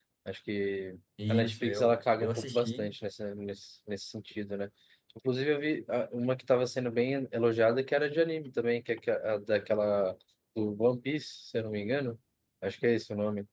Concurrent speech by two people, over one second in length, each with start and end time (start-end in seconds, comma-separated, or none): 1.3-2.9